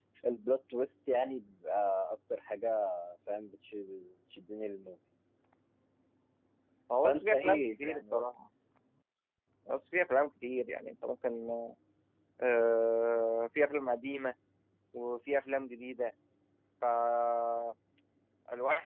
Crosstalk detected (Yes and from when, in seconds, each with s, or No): Yes, from 7.0 s